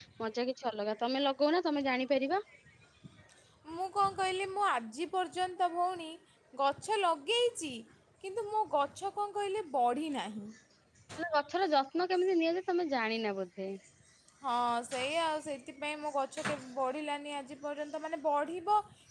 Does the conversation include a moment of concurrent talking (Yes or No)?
No